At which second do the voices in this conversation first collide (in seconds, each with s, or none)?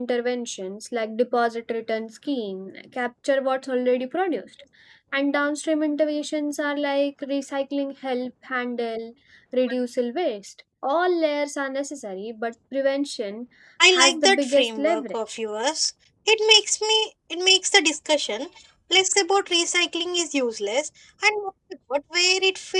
13.9 s